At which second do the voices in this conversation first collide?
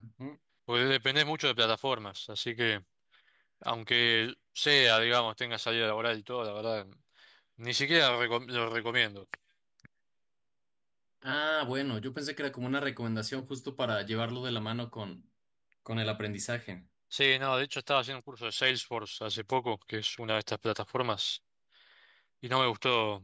none

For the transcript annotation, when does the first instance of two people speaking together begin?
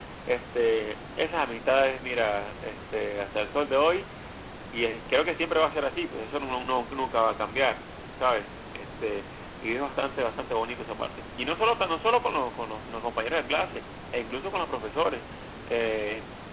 none

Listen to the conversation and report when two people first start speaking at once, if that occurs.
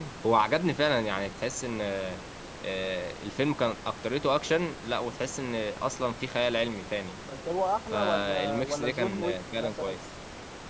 7.9 s

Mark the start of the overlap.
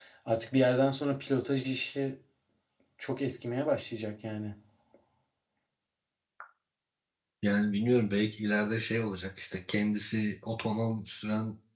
none

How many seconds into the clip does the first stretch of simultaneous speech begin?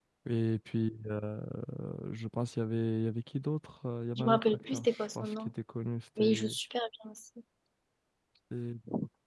4.2 s

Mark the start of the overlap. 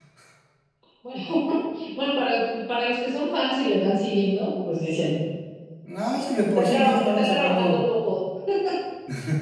6.5 s

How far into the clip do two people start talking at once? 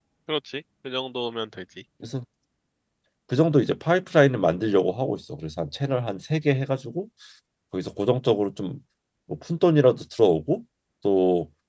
none

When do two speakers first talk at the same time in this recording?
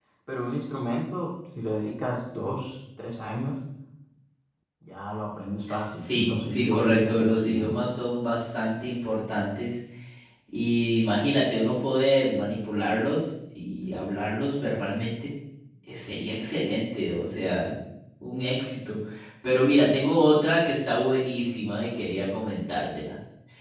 6.0 s

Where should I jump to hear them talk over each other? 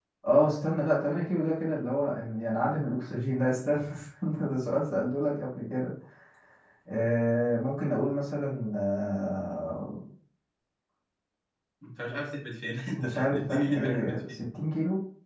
12.9 s

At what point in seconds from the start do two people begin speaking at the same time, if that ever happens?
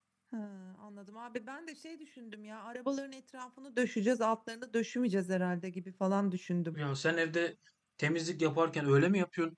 none

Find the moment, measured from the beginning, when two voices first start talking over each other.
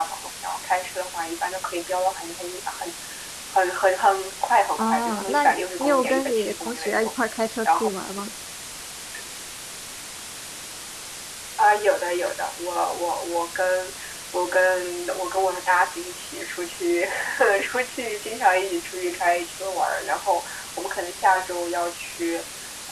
4.8 s

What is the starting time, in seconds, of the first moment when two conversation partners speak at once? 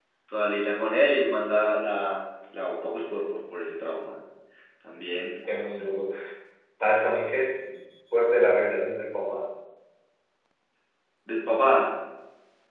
none

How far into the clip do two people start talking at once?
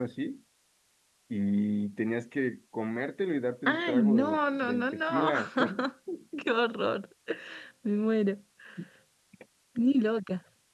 3.6 s

